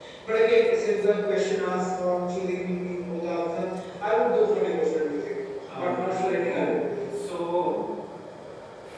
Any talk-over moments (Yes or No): Yes